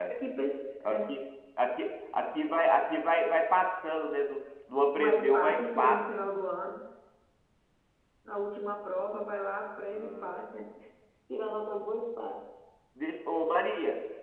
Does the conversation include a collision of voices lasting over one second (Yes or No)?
Yes